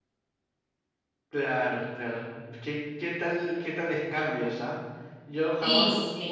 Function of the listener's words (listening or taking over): listening